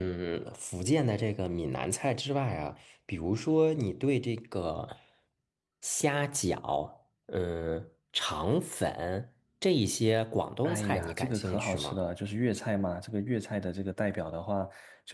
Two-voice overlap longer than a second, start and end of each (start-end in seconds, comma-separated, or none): 10.6-12.0